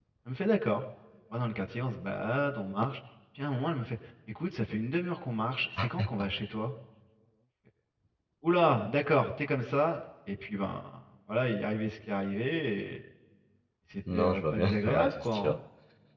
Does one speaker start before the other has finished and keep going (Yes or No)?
Yes